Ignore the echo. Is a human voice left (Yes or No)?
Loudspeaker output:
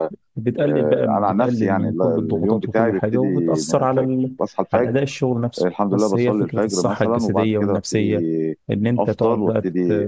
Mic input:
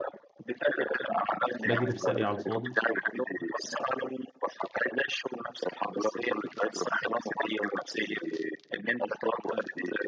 Yes